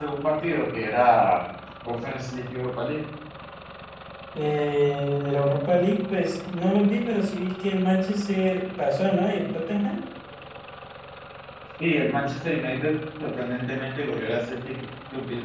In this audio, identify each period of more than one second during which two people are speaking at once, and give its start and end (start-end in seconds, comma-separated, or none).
none